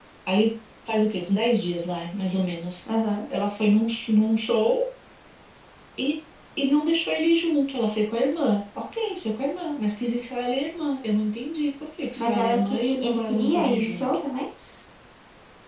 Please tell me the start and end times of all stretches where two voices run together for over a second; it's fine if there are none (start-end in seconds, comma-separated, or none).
12.2-14.2